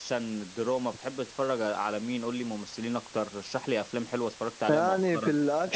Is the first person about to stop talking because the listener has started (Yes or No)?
Yes